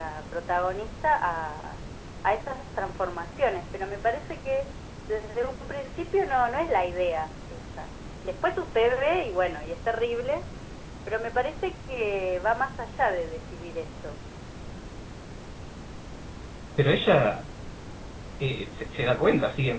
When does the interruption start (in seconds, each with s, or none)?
none